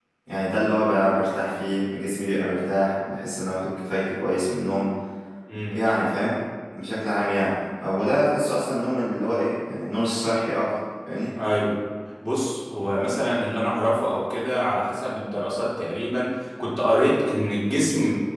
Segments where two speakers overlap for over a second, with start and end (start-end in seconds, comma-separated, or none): none